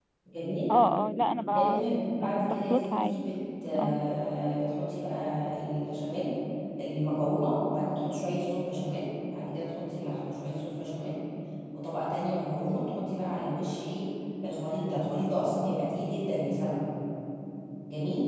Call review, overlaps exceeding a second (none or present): present